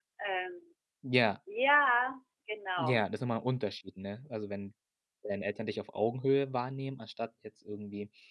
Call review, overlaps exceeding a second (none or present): none